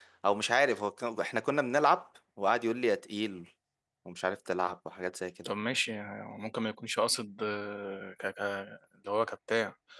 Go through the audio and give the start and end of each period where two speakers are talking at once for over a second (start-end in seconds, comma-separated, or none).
none